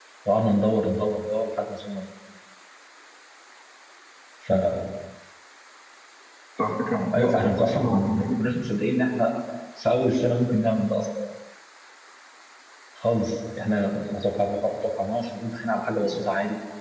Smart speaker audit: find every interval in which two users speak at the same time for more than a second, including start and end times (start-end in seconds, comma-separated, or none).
7.2-8.6